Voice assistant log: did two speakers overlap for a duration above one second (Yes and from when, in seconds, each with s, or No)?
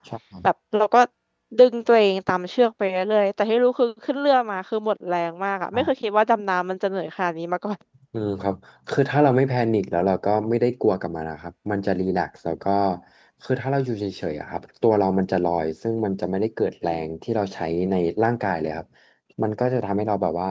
No